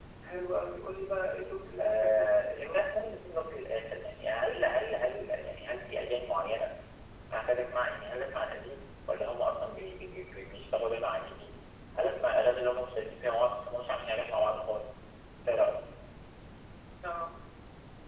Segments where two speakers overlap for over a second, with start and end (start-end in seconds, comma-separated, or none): none